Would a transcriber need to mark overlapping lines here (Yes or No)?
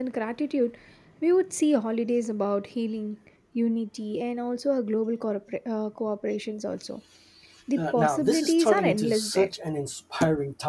Yes